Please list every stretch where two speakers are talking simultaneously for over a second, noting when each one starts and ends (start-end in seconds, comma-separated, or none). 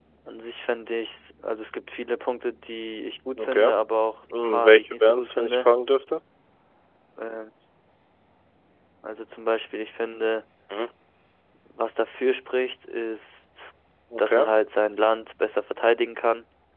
4.4-5.7